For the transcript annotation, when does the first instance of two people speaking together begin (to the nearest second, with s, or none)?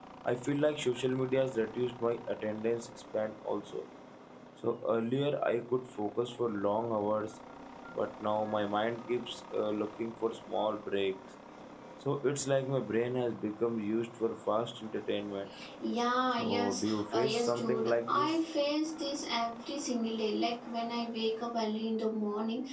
16 s